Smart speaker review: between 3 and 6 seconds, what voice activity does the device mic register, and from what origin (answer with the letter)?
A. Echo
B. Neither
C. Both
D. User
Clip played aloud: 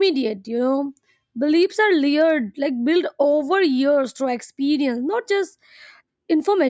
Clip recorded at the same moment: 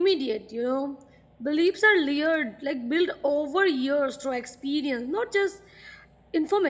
A